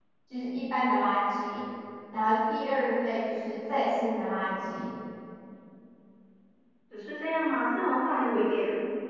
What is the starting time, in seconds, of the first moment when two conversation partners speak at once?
none

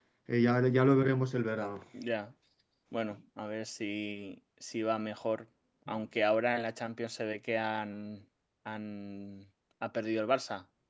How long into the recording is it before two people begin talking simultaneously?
none

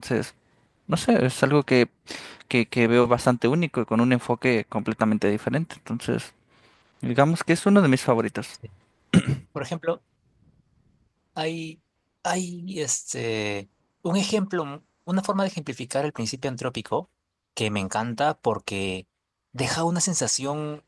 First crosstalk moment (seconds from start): none

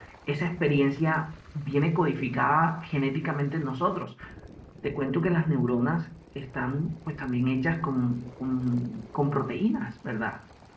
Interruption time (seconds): none

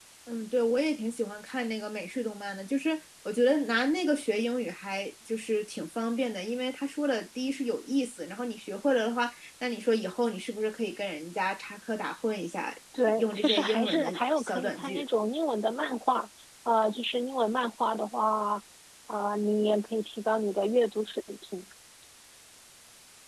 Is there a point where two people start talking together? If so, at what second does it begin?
13 s

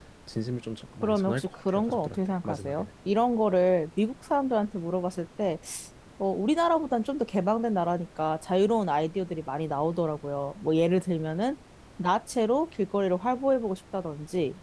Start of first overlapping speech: 1 s

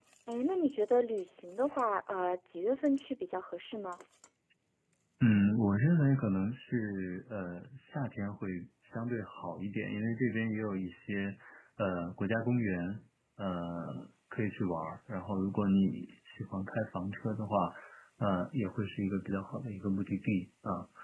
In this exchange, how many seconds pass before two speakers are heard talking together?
none

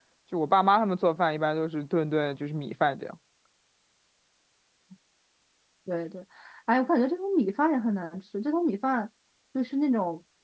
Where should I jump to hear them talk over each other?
none

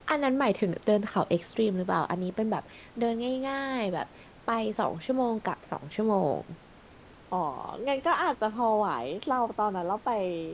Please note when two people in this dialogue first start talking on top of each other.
none

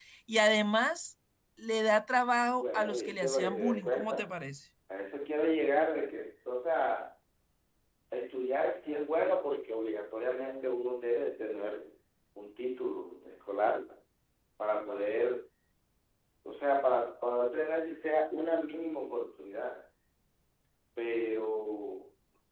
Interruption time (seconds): 3 s

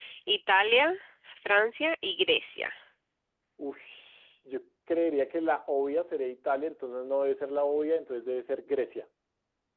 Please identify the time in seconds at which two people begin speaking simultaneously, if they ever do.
none

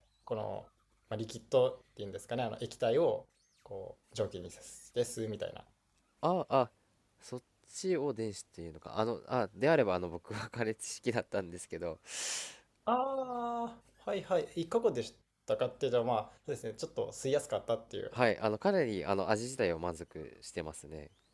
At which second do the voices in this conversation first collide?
none

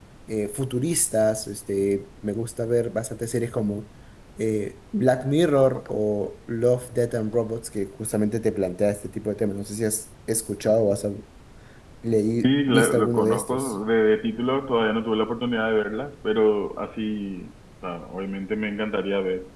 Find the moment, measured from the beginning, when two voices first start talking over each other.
12 s

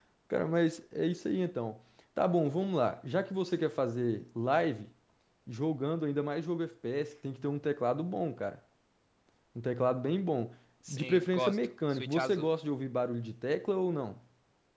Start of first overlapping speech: 11 s

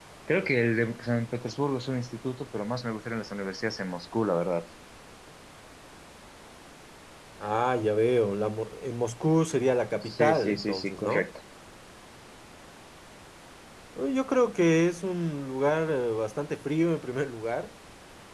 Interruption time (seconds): 10 s

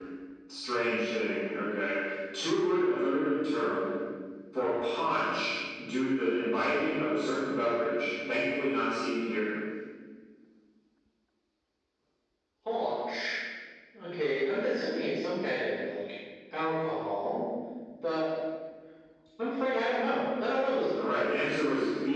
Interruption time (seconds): none

